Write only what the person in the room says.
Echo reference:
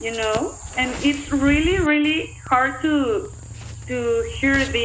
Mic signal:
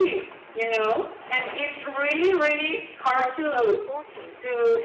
threats from the poachers.

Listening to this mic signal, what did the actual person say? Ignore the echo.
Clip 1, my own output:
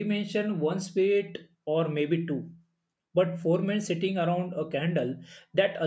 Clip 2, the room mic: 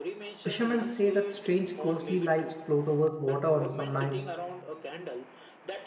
Fishermen say that strange ghostly lights float over the water on some nights.

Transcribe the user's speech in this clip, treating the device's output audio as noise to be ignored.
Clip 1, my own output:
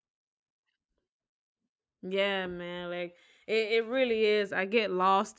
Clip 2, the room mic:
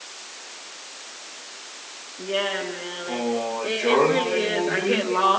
uh, journaling will be.

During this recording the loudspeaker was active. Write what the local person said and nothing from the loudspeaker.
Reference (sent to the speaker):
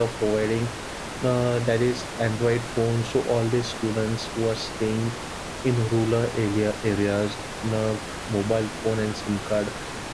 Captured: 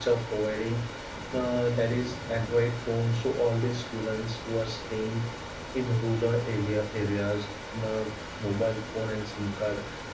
none

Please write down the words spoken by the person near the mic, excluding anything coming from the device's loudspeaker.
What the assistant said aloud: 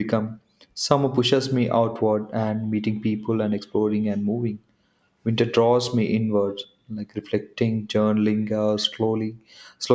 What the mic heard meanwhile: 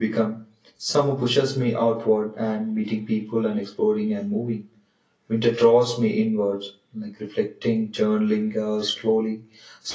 none

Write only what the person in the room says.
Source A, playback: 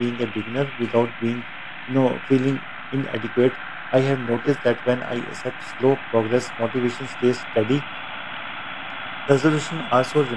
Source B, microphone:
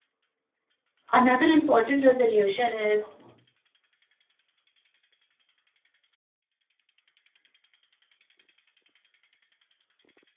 Another important resolution is

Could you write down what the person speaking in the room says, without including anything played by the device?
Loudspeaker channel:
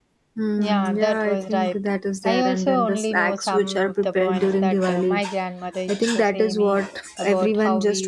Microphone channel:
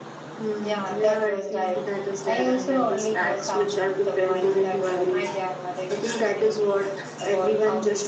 none

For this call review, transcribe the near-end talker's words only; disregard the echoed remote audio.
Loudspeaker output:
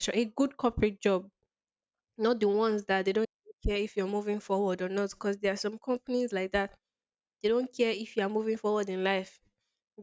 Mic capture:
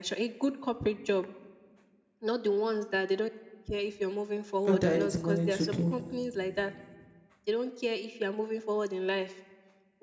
Oh, there is the money to do.

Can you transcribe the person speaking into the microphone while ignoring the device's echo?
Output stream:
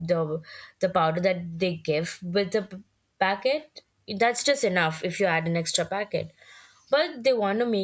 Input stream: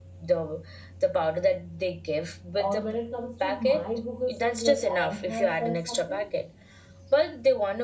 or when it comes to my google search when i have searched something

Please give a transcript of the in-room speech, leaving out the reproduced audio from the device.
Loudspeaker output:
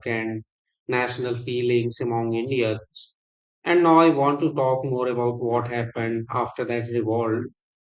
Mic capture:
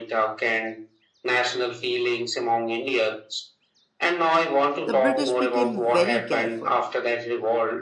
the british became very careful

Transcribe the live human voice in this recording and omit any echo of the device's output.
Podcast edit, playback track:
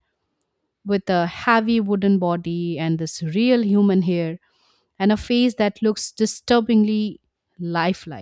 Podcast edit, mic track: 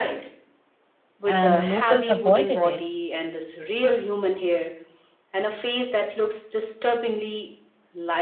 and the locals avoided it

